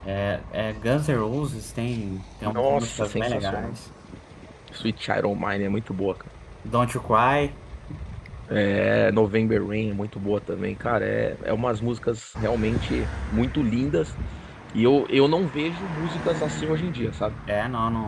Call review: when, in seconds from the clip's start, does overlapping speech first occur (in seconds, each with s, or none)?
2.5 s